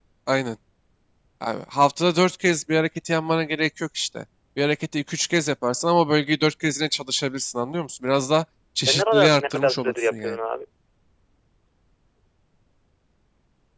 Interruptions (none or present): present